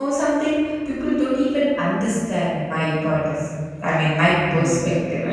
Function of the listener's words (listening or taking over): taking over